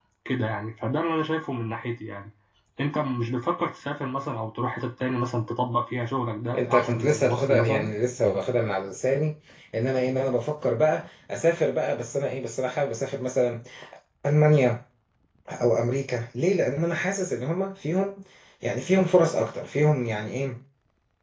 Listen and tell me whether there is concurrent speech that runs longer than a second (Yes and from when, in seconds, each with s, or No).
Yes, from 6.5 s